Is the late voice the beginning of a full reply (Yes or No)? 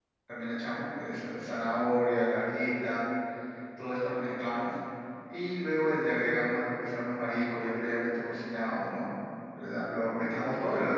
No